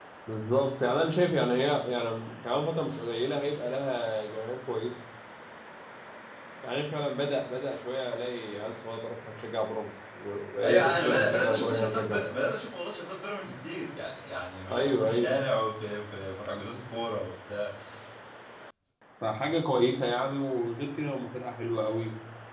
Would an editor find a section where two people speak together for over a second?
Yes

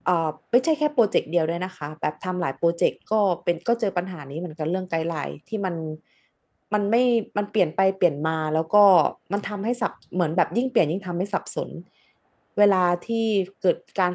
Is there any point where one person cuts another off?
No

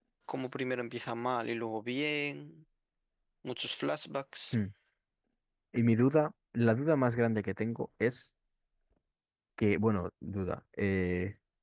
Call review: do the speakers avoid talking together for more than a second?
Yes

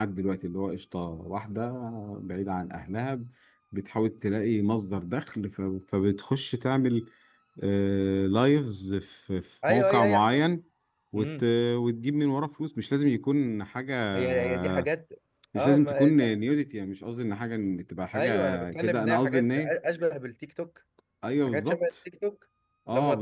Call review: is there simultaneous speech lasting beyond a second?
Yes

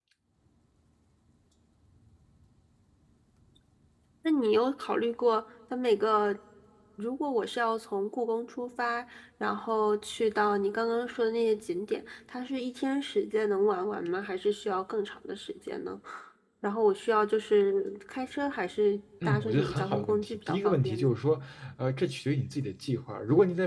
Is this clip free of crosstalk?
No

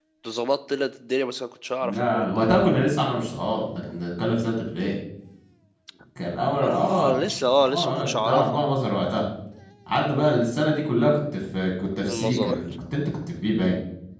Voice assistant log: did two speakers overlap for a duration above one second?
Yes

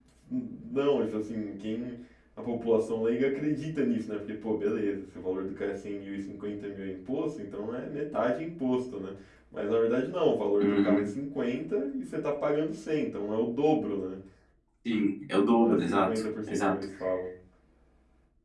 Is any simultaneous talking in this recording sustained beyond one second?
Yes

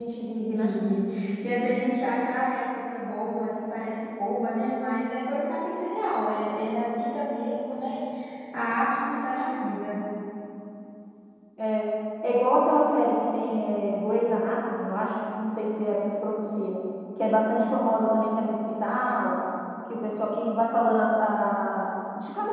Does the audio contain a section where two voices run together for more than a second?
No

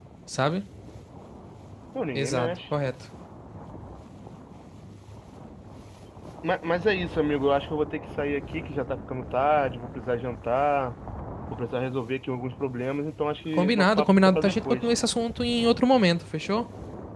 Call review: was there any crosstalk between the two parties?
Yes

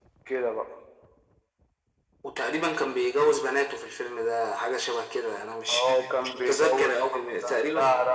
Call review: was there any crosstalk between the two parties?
Yes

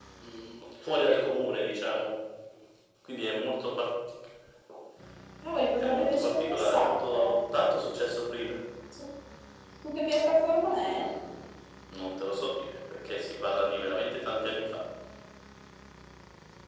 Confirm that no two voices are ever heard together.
No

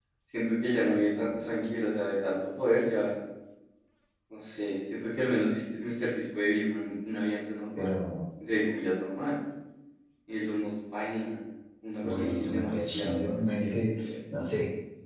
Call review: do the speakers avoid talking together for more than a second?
No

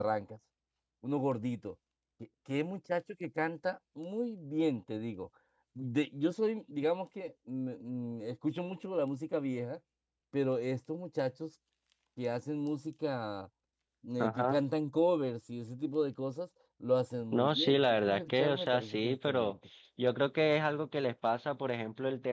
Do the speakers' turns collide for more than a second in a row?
Yes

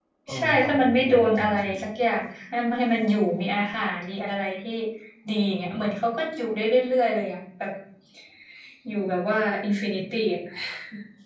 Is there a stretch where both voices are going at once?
Yes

